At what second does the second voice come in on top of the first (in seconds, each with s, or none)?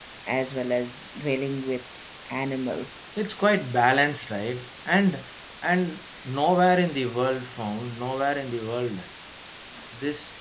none